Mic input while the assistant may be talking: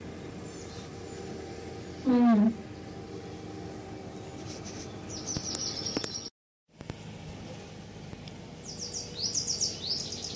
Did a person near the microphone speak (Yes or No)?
Yes